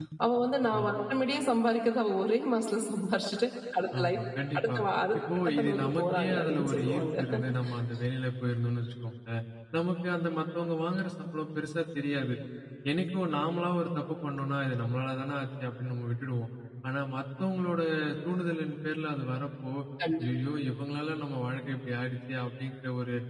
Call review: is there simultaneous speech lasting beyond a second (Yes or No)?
Yes